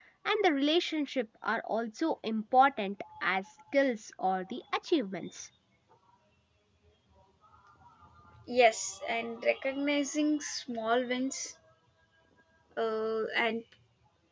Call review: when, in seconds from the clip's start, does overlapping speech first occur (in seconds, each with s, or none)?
none